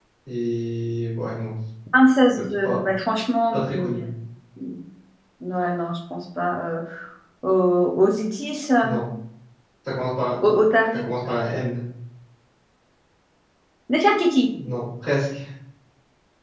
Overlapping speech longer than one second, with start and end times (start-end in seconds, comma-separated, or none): none